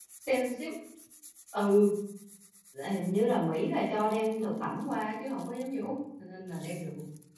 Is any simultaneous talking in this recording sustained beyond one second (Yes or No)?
No